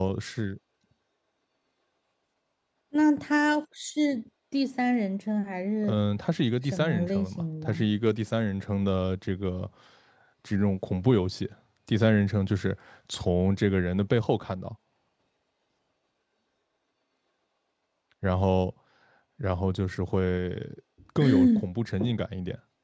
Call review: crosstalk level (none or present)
present